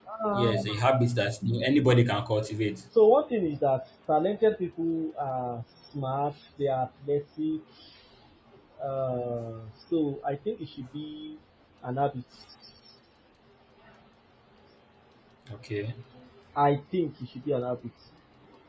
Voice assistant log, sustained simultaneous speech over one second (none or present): none